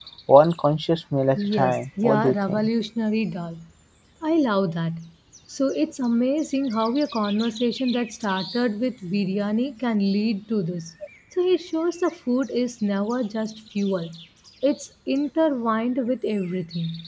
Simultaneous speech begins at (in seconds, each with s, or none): 1.4 s